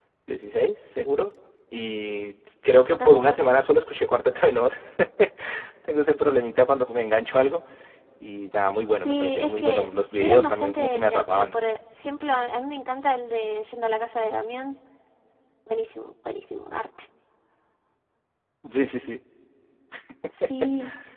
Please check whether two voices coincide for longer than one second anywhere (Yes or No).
Yes